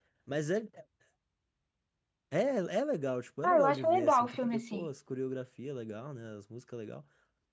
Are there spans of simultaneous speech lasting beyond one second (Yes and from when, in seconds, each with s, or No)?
Yes, from 3.4 s